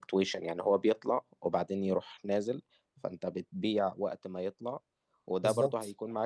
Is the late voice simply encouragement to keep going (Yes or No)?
Yes